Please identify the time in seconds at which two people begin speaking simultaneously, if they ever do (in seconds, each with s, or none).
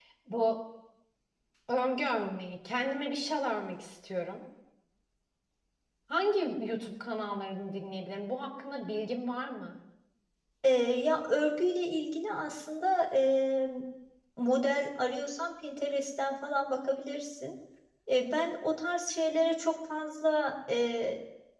none